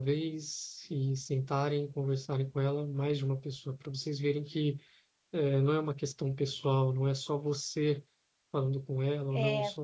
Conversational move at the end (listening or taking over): listening